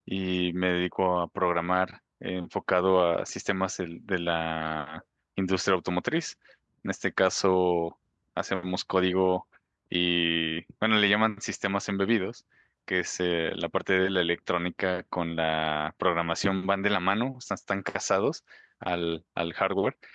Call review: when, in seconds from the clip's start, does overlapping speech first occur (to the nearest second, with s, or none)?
none